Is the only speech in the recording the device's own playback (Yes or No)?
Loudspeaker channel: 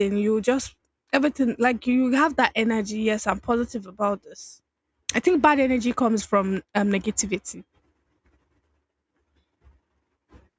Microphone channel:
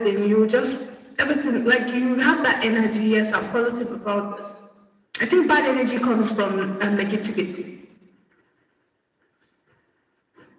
Yes